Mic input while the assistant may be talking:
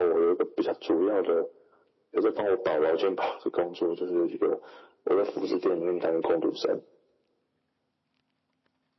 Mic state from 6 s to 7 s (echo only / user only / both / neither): echo only